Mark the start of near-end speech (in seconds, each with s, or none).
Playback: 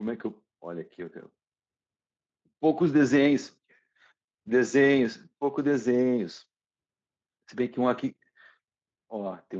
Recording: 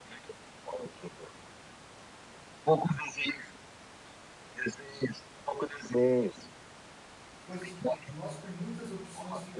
7.4 s